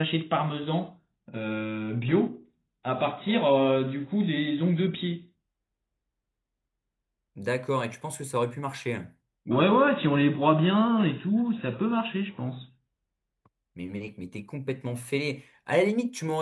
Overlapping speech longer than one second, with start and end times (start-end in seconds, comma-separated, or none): none